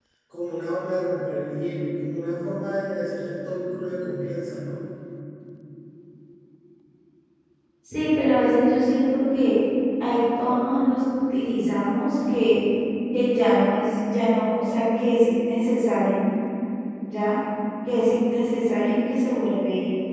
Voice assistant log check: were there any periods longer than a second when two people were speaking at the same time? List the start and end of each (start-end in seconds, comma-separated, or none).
none